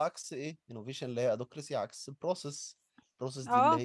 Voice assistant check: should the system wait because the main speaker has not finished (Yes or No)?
No